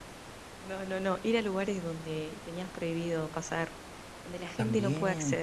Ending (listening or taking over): taking over